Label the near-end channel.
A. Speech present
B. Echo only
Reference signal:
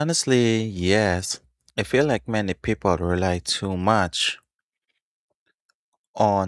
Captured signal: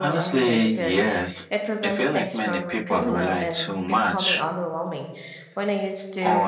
A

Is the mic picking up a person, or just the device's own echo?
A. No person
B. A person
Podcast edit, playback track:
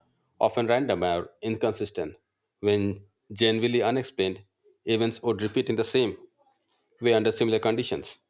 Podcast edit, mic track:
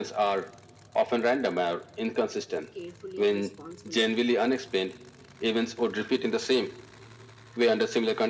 B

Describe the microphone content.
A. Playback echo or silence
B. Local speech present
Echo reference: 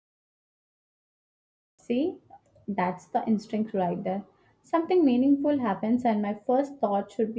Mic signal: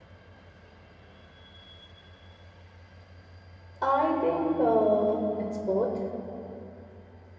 B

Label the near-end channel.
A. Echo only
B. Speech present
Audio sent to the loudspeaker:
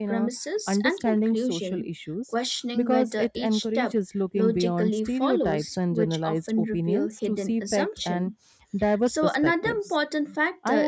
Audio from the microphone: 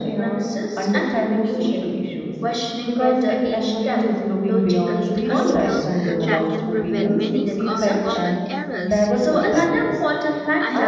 B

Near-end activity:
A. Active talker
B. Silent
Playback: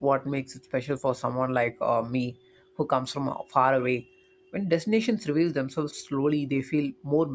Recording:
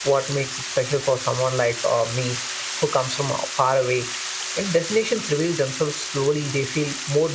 B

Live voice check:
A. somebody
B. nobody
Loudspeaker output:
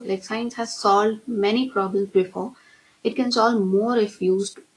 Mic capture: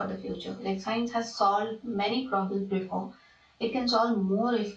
B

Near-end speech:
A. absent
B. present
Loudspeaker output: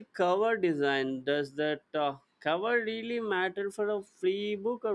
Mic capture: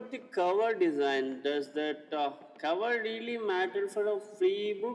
A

